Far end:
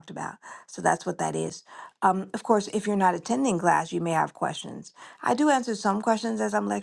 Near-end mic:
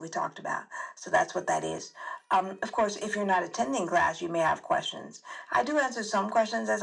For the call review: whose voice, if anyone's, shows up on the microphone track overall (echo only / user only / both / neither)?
echo only